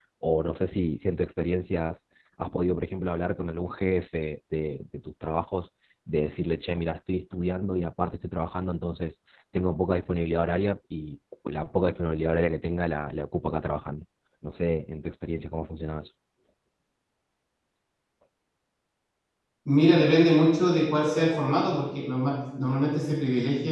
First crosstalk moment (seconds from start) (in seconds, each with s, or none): none